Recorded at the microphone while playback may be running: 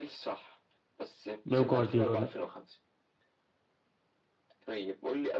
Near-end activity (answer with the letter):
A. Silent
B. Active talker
B